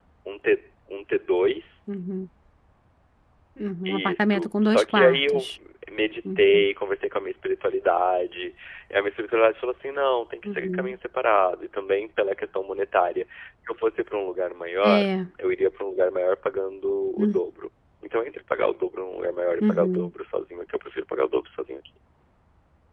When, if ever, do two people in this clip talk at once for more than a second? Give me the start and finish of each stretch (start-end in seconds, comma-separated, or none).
3.9-5.5